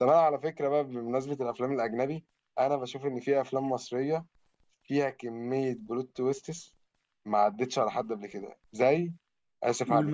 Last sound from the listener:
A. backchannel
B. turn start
B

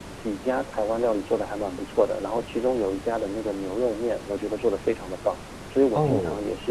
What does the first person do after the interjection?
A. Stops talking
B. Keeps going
B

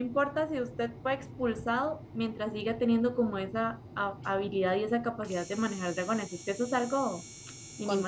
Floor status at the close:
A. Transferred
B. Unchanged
A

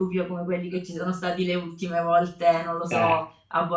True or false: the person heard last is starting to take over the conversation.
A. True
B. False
B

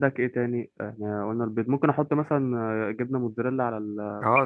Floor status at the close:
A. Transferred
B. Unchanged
A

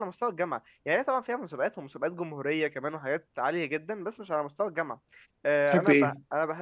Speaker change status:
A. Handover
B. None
B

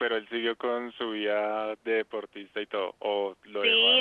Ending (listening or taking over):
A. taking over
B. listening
A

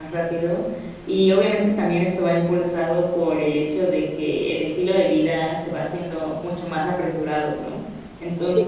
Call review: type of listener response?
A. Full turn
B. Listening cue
B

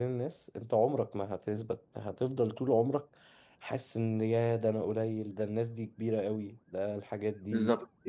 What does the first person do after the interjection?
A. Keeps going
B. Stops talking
B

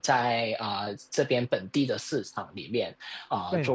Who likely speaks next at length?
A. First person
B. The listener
A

